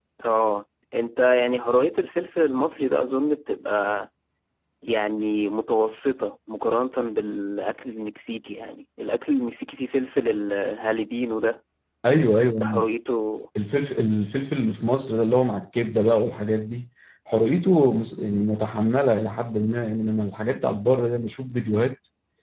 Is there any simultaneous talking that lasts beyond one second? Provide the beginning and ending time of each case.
none

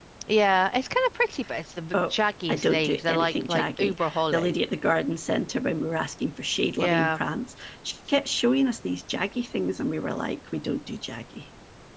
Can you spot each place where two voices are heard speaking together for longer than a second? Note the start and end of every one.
2.5-4.5

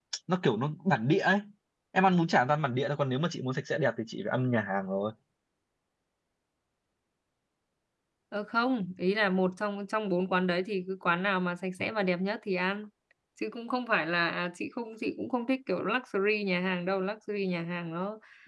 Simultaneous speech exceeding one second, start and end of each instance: none

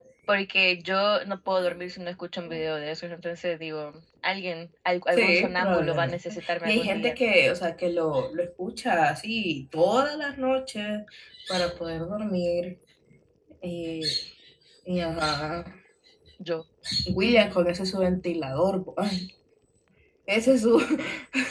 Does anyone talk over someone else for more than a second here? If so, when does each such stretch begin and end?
5.1-7.1

